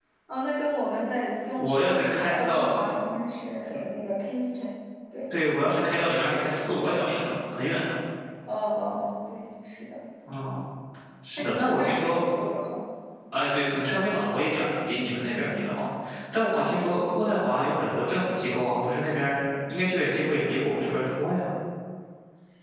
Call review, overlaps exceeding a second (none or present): present